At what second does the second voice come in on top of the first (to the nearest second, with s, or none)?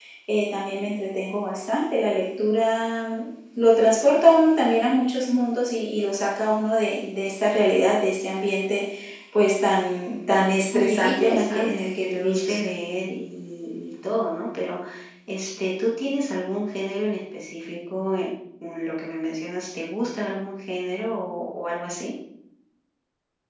11 s